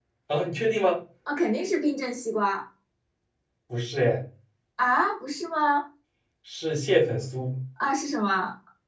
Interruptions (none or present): none